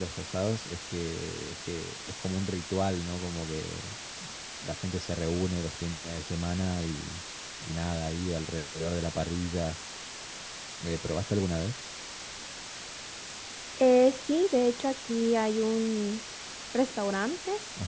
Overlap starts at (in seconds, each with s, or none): none